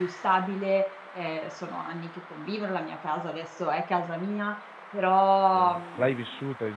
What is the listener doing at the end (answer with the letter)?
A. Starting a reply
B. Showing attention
A